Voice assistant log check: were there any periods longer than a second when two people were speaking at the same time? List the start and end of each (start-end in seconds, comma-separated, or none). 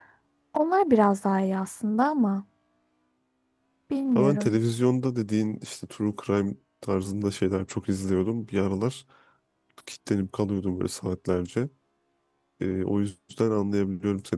none